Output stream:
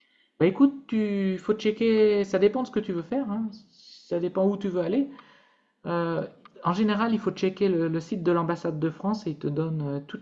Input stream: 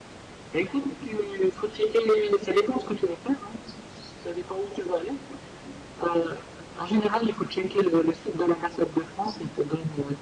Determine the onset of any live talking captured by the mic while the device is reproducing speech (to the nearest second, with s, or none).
none